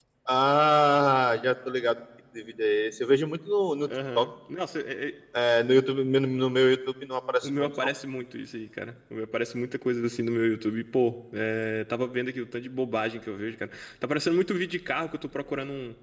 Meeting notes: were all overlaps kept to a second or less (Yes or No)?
Yes